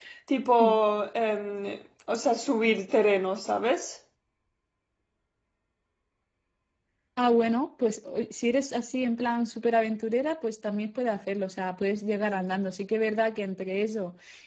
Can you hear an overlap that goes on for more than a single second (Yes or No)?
No